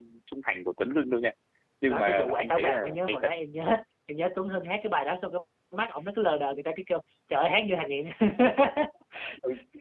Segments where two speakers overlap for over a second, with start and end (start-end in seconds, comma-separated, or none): 1.9-3.3